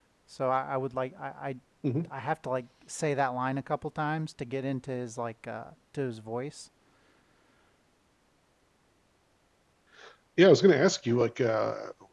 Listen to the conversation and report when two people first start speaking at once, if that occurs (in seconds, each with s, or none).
none